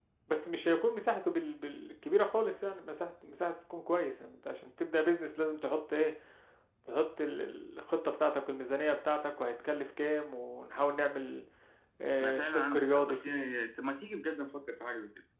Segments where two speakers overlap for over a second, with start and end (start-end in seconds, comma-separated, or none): 12.2-13.5